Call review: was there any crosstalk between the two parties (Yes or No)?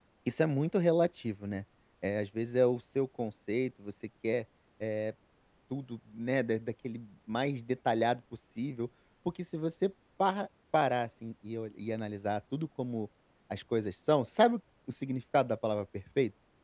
No